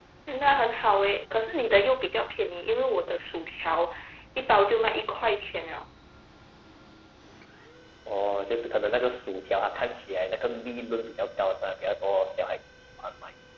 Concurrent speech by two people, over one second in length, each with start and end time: none

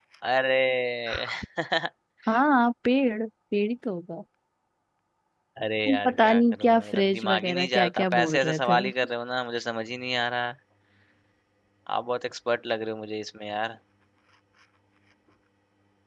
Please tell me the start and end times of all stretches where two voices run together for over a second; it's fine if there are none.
5.9-8.8

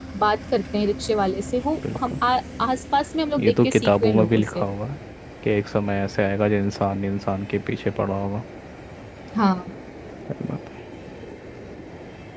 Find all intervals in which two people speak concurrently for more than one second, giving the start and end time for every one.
3.4-4.6

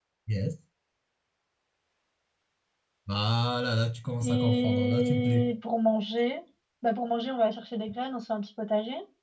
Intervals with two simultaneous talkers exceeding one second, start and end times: 4.2-5.5

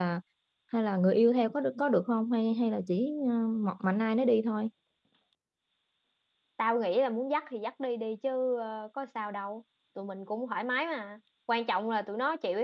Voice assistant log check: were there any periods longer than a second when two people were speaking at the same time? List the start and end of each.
none

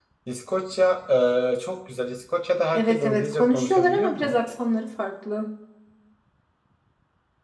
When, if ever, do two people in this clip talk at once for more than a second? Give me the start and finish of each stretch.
2.7-4.3

